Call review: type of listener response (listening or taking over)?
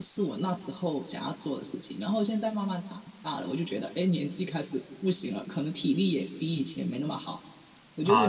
taking over